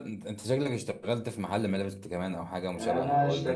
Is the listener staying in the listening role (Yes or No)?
No